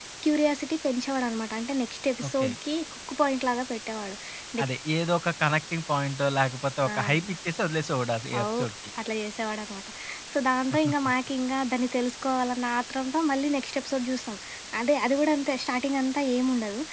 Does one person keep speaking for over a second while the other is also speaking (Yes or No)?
No